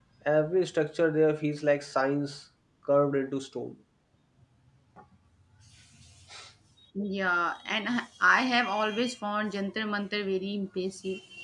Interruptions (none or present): none